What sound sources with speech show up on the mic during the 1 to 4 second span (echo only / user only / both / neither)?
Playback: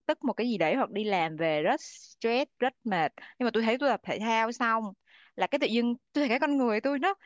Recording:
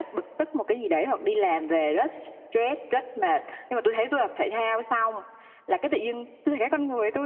echo only